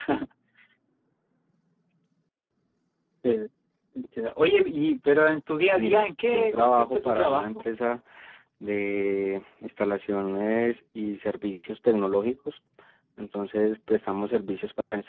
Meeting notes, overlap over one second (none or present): present